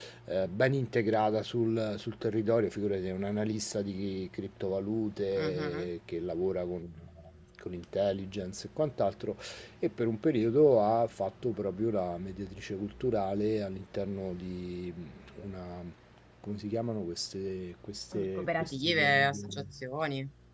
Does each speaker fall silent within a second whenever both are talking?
No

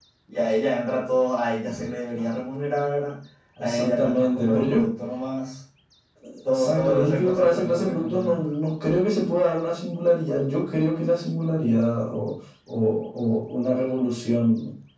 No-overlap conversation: No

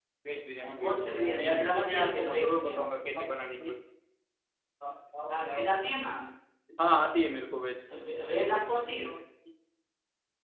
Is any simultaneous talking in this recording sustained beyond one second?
Yes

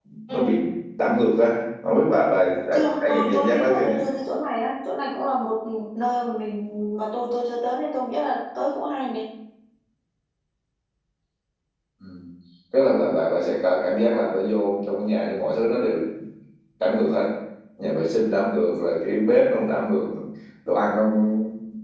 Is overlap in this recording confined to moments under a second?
No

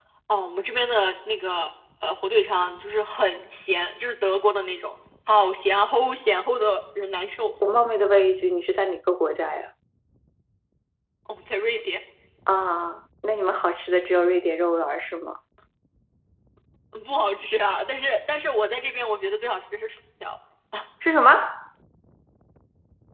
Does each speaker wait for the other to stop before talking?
Yes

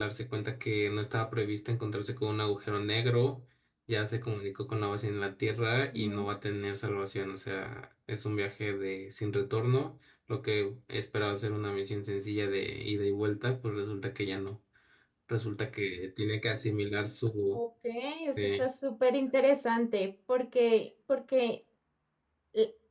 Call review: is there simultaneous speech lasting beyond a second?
No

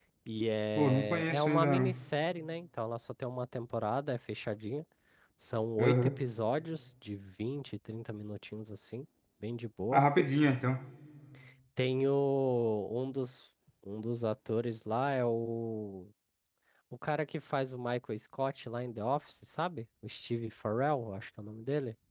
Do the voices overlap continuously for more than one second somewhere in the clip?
Yes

